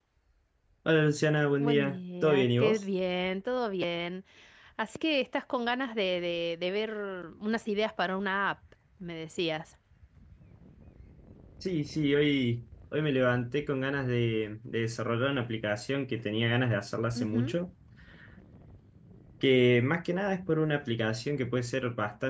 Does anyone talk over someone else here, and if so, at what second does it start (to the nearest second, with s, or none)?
2 s